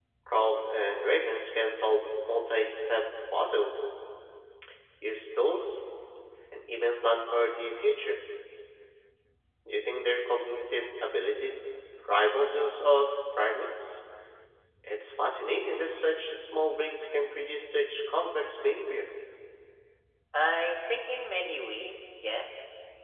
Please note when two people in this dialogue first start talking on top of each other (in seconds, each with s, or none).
none